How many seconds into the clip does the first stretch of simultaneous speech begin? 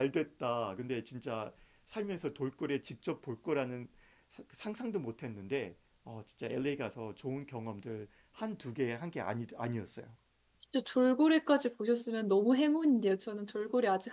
none

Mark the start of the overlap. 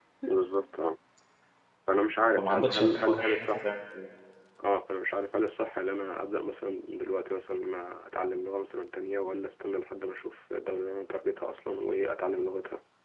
2.4 s

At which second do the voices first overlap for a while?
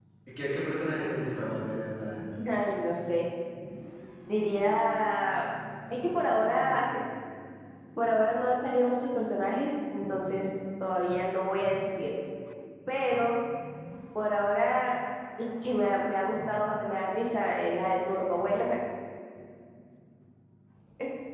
none

